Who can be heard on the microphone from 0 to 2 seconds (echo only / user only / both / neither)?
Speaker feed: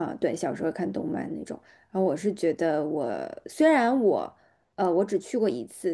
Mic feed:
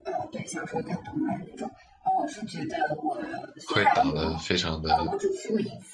echo only